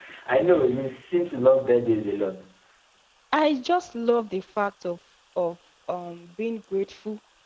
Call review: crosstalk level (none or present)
none